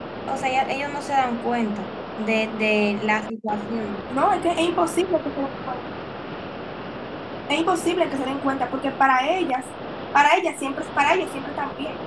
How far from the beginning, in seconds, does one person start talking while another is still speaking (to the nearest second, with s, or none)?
none